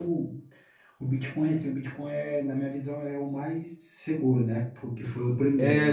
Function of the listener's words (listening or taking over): taking over